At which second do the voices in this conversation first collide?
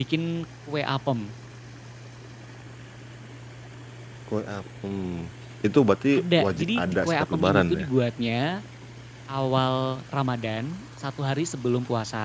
6 s

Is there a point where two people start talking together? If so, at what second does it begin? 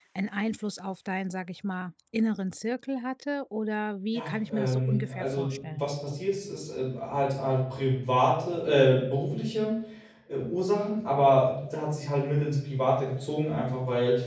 4 s

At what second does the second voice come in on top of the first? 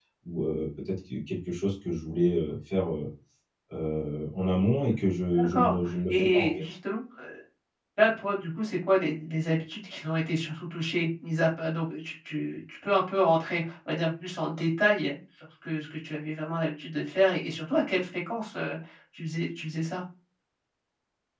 5 s

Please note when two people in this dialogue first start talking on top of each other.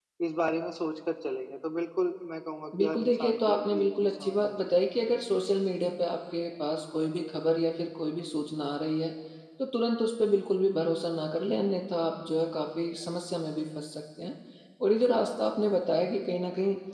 3 s

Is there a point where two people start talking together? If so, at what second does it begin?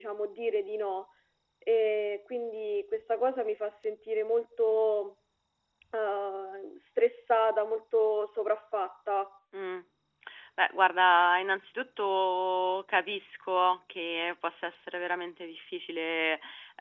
none

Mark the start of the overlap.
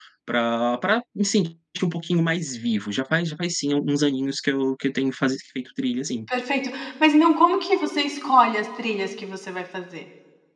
none

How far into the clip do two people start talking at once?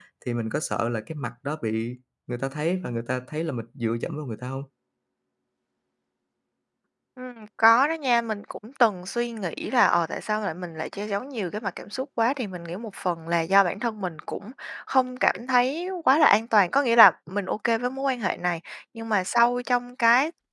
none

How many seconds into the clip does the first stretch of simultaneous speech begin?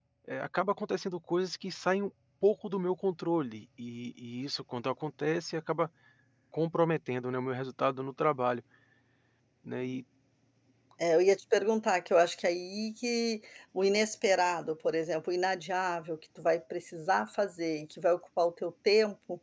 none

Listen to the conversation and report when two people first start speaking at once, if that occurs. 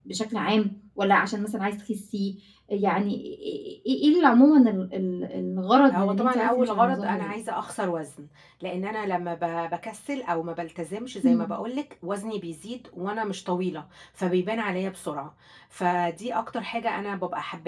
6 s

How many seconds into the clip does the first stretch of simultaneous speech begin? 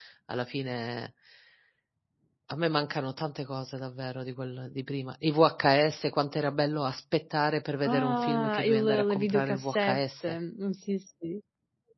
8 s

